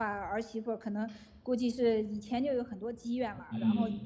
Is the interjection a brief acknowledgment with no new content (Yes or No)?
Yes